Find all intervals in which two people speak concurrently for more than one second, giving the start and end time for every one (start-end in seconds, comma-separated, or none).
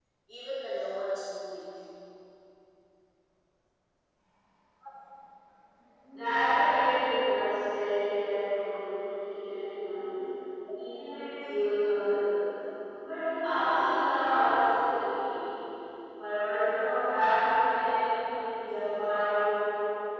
none